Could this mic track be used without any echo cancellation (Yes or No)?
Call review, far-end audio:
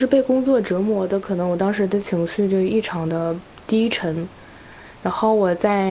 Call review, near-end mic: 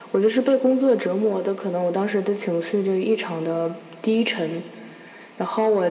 No